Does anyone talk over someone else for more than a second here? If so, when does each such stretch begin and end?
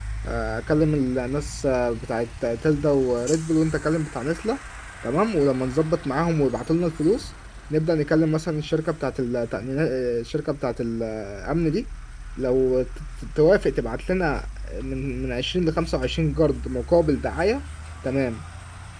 none

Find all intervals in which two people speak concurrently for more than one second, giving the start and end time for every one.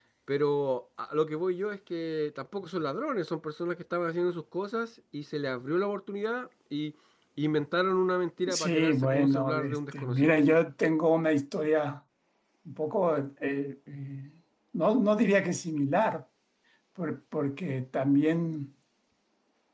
8.5-10.4

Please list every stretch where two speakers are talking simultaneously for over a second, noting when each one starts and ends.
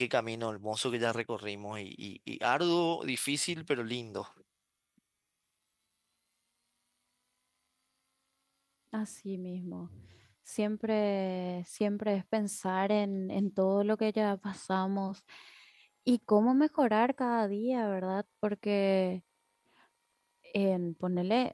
none

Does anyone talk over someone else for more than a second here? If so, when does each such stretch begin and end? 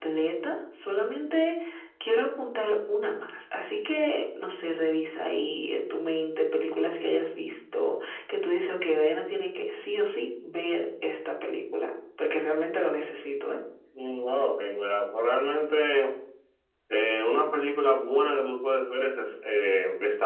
none

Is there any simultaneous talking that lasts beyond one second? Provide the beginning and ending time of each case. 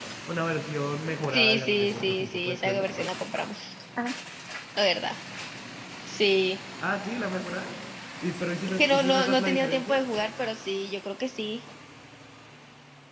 1.3-2.9, 8.7-10.0

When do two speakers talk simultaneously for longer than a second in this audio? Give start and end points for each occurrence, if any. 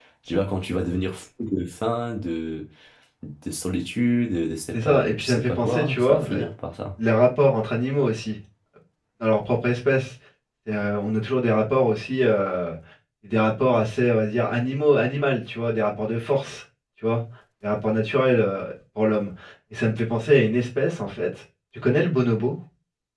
4.7-6.4

